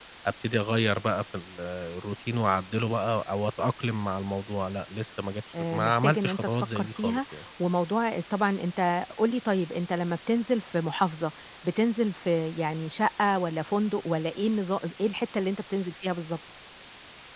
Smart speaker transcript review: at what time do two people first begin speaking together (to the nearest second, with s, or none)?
6 s